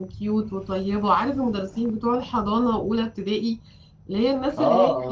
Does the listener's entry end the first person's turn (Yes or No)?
Yes